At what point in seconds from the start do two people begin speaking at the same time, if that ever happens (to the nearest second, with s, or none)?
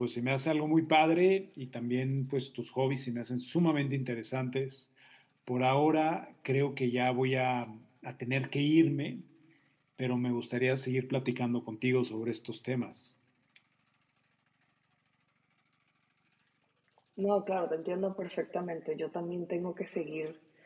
none